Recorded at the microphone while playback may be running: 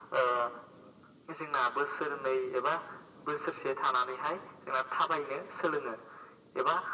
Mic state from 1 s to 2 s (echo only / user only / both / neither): echo only